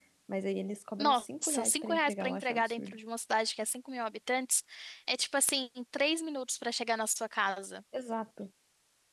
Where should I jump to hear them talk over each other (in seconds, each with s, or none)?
1.0 s